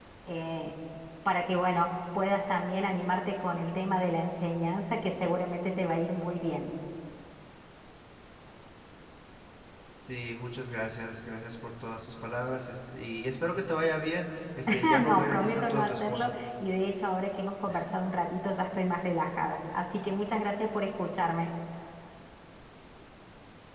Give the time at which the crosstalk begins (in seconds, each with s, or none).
14.8 s